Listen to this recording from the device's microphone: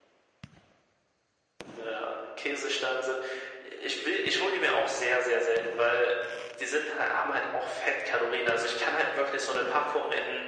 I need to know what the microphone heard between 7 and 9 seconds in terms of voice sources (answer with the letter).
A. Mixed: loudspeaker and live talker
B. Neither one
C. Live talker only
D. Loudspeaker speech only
D